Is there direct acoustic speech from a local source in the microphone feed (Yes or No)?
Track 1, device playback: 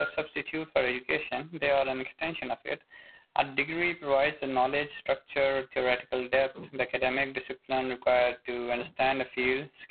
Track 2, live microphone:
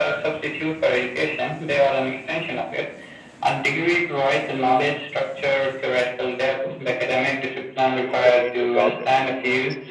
Yes